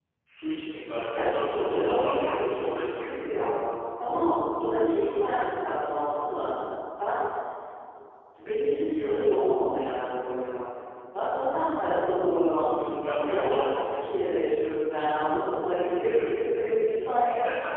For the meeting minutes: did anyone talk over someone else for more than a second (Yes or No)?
Yes